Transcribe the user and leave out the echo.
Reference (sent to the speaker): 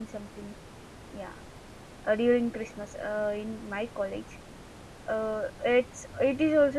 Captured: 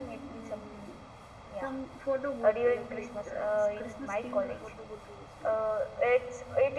even uh, some photo booth like it, uh, it's Christmas themed photo booth we used to make

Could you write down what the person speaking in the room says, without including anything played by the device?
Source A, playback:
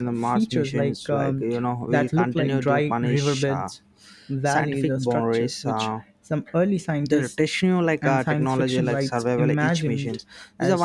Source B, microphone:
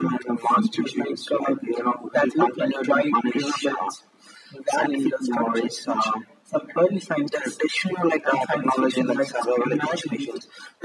none

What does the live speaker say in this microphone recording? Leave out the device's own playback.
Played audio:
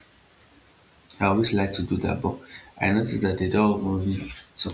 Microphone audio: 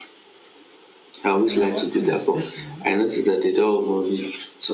mm, nothing especially.

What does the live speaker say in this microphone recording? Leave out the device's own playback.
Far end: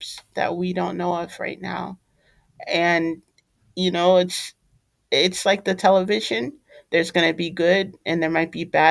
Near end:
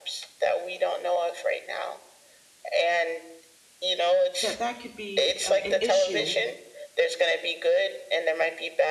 that that could be uh, an issue

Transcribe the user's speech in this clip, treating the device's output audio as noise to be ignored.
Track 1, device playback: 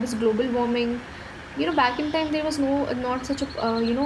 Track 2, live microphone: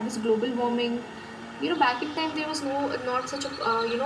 none

